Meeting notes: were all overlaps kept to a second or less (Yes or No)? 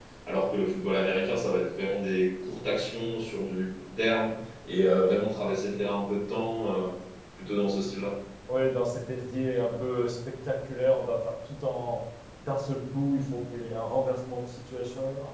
Yes